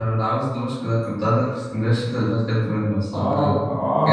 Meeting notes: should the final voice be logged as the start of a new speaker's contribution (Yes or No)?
Yes